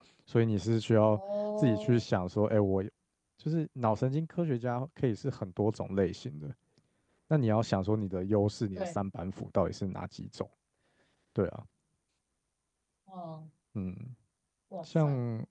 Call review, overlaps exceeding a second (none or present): none